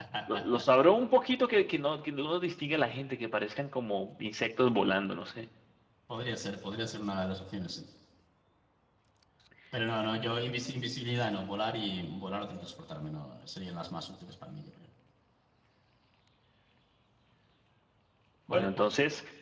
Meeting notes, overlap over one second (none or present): none